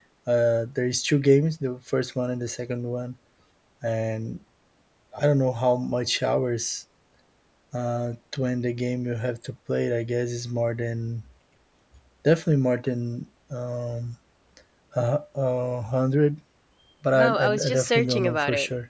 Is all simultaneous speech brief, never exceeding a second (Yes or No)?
No